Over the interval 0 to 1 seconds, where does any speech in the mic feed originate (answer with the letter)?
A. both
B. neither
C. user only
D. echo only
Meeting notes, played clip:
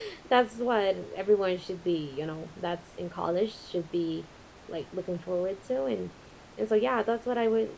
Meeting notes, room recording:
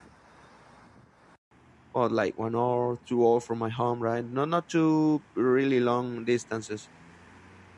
B